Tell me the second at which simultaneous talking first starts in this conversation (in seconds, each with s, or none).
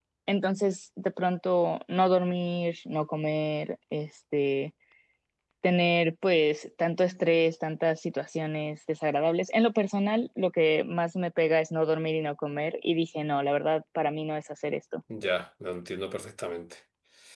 none